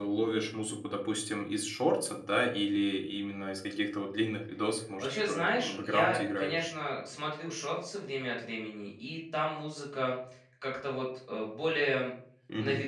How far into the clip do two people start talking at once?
5.0 s

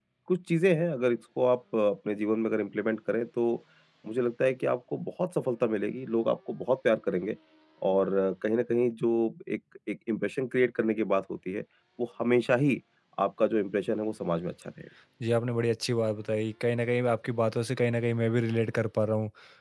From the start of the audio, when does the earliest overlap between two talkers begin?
none

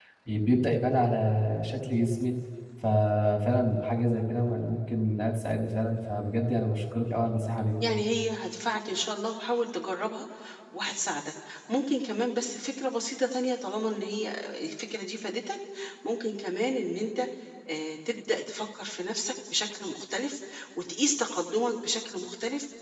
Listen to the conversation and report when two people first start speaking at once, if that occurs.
none

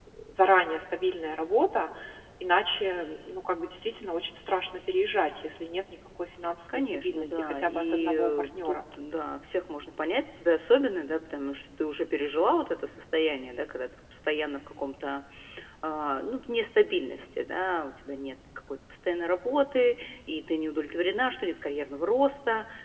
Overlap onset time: 6.7 s

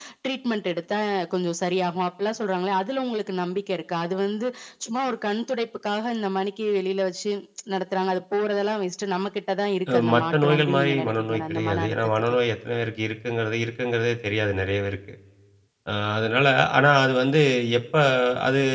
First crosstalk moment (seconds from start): 9.9 s

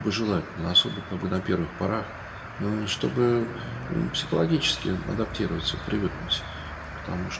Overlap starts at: none

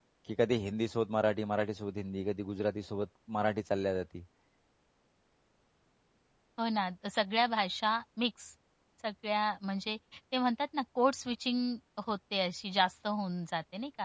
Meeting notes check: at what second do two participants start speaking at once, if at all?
none

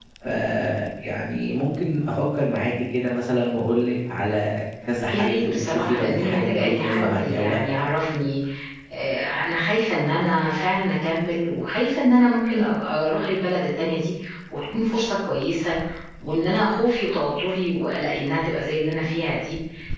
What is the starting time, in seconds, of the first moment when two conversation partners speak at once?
5.1 s

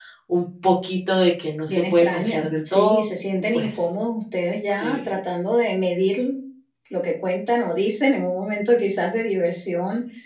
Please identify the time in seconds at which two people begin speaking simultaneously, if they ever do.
1.7 s

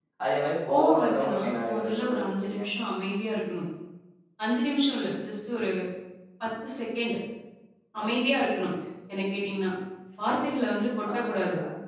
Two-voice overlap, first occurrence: 0.7 s

